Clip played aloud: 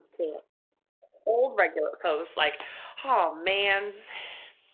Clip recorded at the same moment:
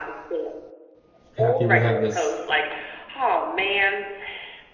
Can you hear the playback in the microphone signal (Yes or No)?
Yes